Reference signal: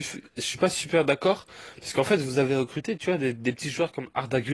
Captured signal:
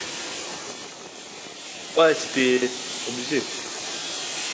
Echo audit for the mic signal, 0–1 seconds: neither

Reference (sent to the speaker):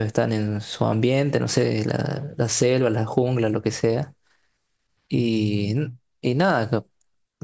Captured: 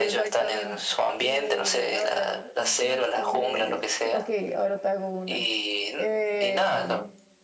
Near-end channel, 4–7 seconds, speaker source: both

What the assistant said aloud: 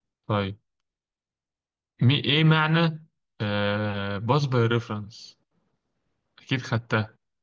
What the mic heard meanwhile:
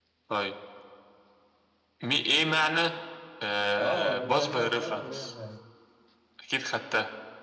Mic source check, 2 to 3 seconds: echo only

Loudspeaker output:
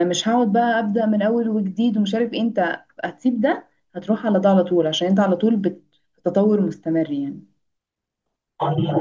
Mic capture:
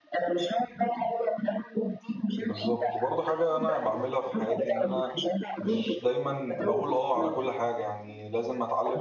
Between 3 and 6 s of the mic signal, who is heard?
both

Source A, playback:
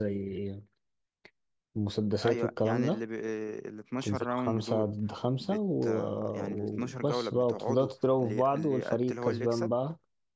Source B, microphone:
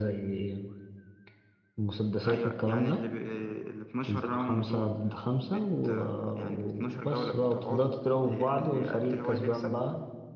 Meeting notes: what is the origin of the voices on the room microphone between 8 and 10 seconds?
echo only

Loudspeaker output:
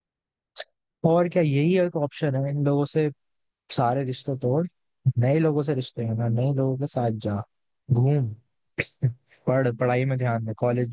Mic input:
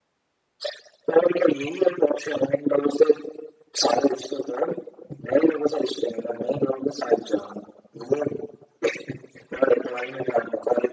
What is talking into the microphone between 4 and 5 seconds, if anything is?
echo only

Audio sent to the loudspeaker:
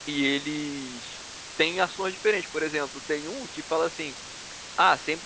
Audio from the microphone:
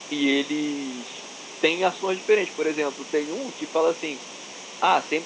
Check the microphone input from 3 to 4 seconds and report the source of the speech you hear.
echo only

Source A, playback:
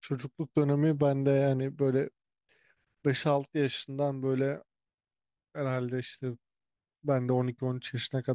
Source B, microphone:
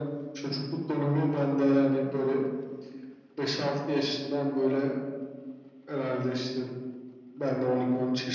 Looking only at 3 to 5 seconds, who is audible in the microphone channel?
echo only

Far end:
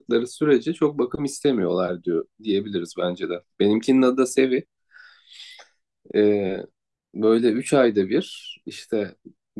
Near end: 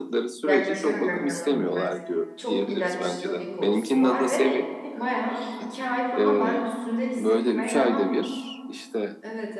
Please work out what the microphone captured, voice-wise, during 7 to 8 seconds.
both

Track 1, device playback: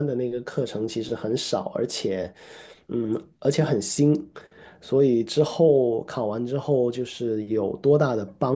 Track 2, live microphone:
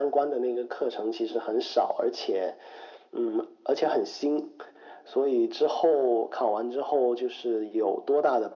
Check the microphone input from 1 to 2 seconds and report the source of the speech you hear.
echo only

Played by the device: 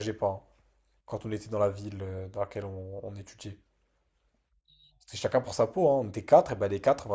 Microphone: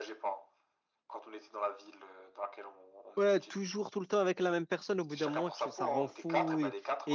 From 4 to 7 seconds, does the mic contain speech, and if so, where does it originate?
both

